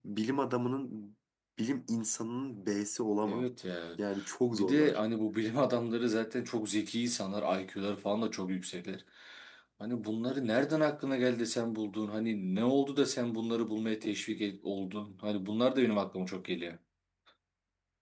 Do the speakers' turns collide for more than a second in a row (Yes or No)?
No